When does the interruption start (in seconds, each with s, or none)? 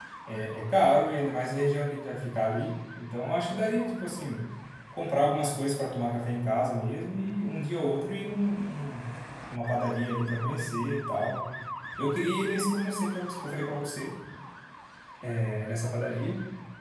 none